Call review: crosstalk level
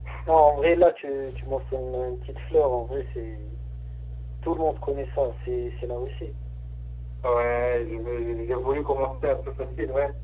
none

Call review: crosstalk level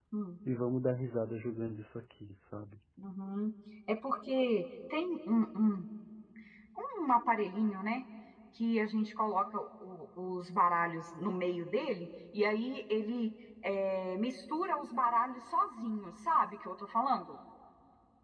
none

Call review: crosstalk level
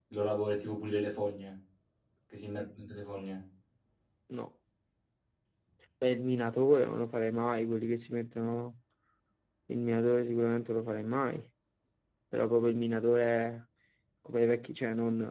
none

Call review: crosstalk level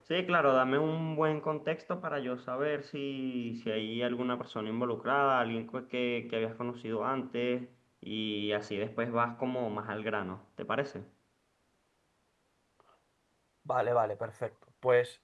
none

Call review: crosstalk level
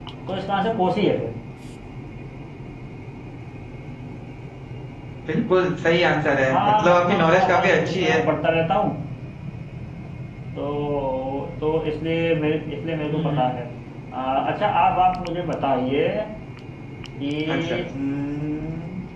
present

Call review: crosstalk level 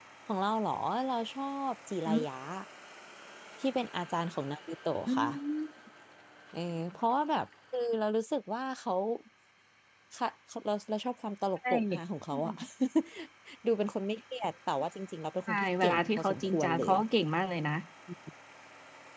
present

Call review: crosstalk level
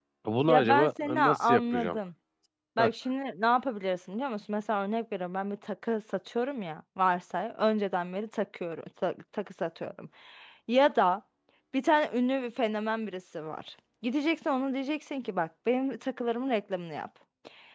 present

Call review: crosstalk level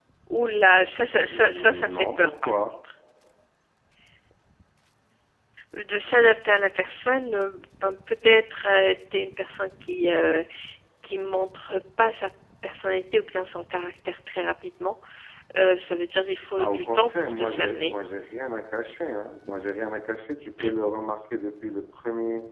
present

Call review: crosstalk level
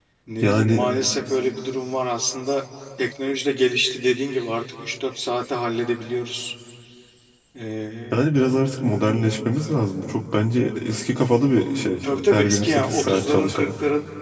present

